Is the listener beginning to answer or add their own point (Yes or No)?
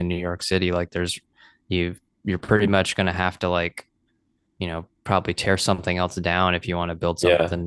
Yes